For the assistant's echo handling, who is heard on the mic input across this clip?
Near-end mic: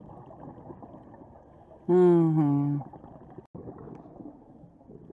user only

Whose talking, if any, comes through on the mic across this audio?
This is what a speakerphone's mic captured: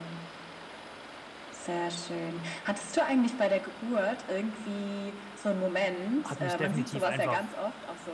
both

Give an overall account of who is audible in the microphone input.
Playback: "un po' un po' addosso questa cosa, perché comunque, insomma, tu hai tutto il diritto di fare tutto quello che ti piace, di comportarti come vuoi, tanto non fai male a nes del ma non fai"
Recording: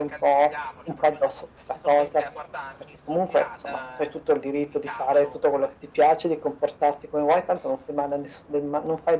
both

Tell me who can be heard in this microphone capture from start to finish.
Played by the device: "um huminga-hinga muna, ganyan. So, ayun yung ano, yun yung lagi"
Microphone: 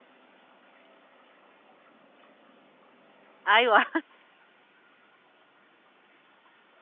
user only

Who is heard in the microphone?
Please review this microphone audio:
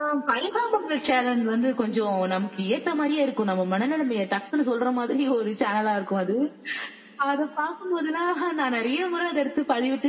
echo only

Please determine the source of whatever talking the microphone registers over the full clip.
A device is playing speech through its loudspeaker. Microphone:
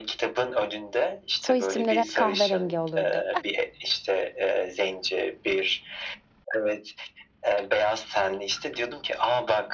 both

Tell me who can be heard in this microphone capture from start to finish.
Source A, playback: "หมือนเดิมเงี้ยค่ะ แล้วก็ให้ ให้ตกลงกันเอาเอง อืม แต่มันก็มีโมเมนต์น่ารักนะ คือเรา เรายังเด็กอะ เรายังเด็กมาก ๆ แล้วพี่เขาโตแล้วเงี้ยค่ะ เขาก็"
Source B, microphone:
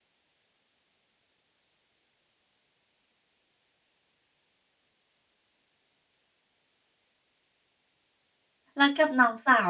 user only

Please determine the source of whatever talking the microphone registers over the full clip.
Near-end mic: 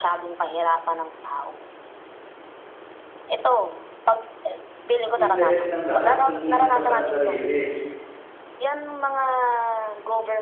both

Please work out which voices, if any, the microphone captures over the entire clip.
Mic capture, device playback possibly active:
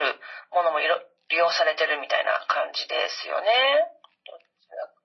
echo only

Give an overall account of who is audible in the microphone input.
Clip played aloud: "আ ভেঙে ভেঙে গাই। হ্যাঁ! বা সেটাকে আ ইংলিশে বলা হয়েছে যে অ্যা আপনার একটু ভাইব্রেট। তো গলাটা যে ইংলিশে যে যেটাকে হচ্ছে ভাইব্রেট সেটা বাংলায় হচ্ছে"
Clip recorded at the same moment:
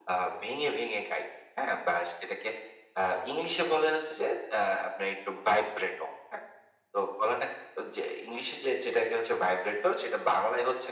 echo only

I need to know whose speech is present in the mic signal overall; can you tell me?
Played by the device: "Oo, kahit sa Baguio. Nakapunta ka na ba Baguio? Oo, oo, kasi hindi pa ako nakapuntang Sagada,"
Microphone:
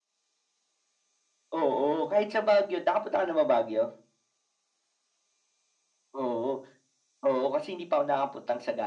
echo only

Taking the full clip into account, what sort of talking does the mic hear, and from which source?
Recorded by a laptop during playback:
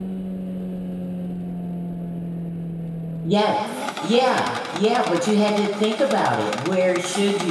user only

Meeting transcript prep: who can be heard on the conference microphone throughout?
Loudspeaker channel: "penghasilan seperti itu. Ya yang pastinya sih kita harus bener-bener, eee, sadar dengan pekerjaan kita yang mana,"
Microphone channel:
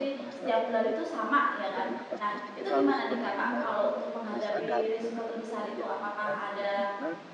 both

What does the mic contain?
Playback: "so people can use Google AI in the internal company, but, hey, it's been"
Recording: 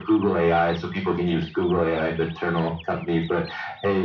echo only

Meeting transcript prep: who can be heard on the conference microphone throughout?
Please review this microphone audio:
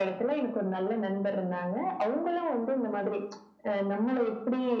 echo only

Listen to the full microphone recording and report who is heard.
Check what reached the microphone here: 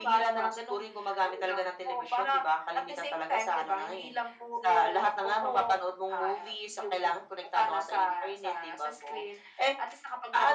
echo only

